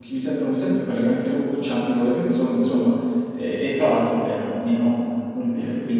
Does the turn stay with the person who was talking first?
No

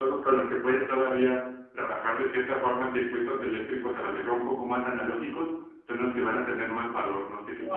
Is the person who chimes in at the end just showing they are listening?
No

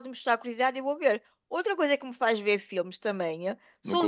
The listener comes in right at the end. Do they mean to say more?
Yes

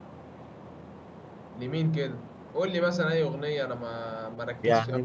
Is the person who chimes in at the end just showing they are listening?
No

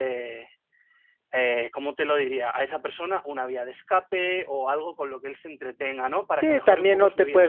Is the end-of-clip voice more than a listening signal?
Yes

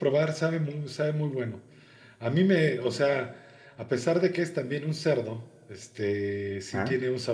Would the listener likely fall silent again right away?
Yes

